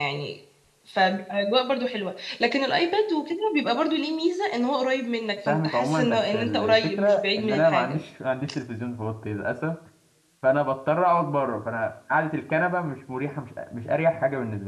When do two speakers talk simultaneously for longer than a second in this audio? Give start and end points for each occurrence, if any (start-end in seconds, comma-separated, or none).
5.5-8.0